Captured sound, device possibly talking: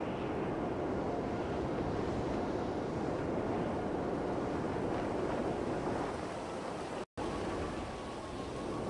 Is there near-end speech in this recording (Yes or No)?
No